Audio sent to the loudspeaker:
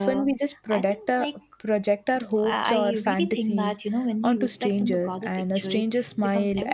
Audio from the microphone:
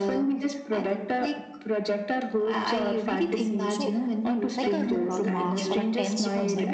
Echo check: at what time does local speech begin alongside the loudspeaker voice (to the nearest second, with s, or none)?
4 s